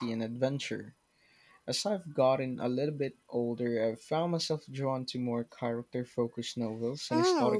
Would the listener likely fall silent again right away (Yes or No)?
No